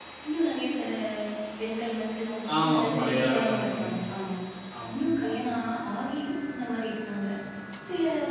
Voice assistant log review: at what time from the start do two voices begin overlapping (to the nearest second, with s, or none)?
3 s